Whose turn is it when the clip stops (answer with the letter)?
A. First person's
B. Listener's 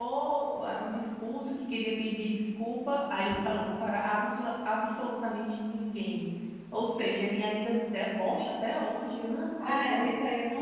B